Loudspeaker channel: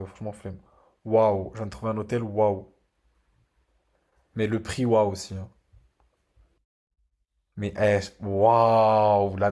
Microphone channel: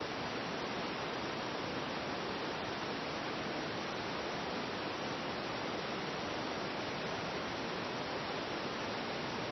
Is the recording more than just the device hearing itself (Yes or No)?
No